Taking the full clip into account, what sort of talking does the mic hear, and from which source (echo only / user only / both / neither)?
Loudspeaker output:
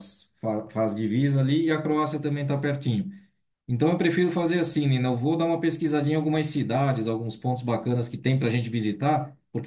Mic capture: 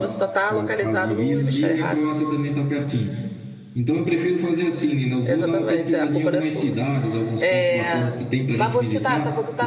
both